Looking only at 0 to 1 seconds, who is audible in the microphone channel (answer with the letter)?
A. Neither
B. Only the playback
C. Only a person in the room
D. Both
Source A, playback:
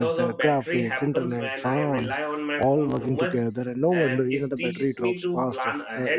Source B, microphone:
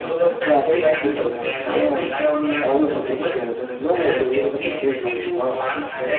D